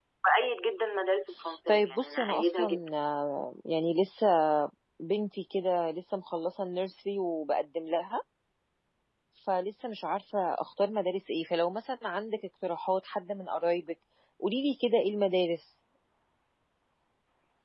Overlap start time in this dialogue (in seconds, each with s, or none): 1.7 s